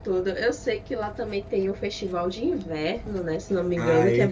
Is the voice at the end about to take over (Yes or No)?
Yes